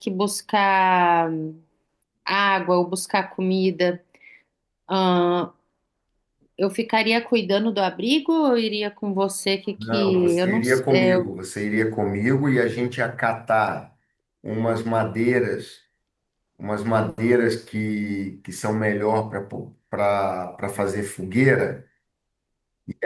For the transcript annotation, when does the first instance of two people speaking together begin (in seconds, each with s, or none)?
9.8 s